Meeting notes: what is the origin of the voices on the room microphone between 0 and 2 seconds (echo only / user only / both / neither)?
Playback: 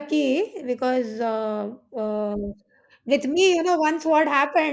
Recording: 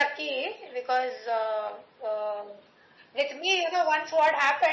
echo only